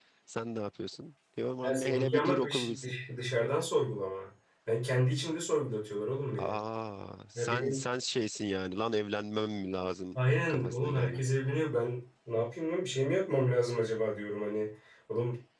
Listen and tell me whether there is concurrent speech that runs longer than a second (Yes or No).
Yes